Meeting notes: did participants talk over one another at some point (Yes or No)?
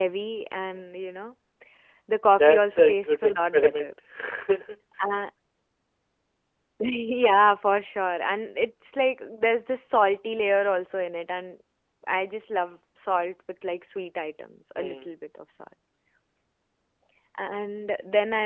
Yes